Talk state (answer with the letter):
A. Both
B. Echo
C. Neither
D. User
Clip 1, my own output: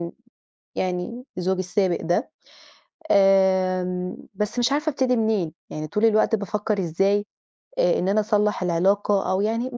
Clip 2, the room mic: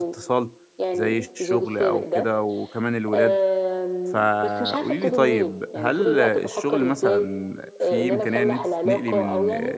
A